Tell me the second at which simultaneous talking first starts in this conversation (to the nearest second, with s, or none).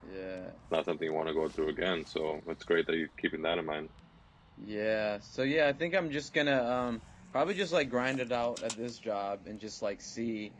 none